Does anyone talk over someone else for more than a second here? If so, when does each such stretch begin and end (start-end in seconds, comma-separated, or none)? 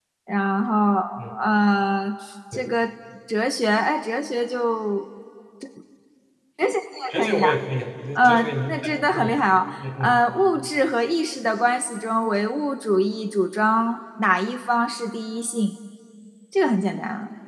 8.2-9.4